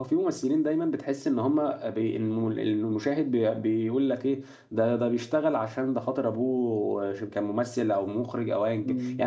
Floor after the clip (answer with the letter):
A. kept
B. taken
B